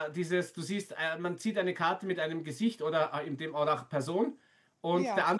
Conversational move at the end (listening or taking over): listening